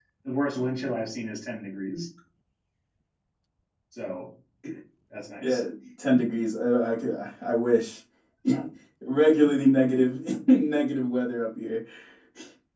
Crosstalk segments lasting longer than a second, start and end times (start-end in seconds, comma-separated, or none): none